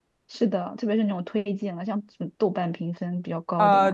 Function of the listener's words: taking over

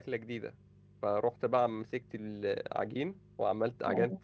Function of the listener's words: listening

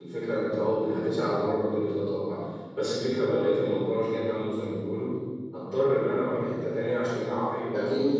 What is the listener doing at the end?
taking over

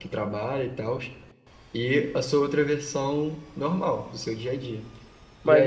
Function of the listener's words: taking over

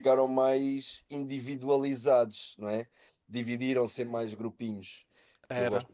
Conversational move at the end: listening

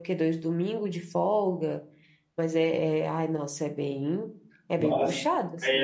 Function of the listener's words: taking over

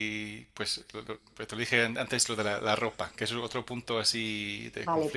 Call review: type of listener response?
taking over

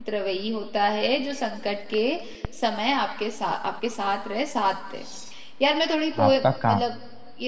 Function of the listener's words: listening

